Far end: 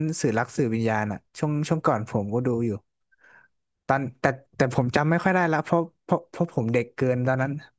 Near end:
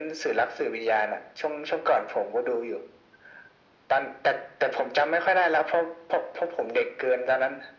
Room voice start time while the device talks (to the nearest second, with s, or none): none